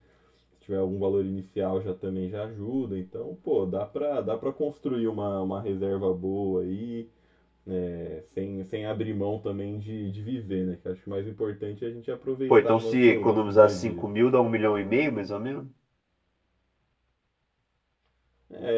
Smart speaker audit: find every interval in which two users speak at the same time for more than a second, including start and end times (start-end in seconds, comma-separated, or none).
12.5-14.0